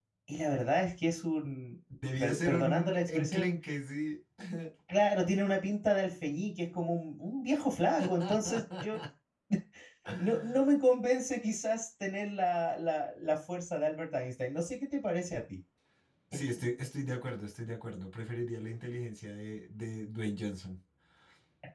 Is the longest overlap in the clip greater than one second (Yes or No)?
Yes